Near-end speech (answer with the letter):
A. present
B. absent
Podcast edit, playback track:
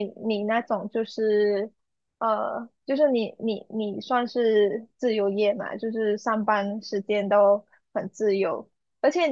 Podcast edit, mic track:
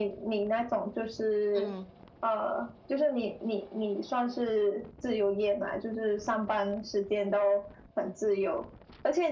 A